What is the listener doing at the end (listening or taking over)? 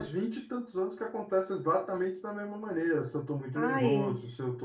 listening